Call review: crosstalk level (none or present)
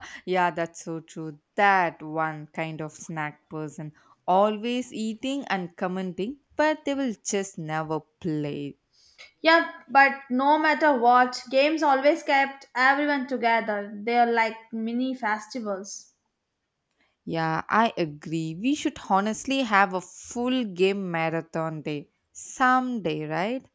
none